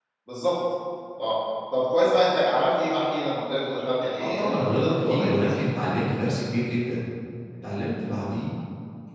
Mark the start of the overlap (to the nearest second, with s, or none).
4 s